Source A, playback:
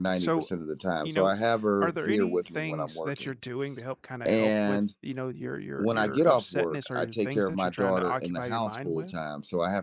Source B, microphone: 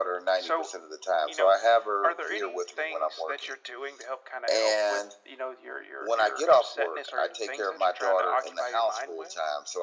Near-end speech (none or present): none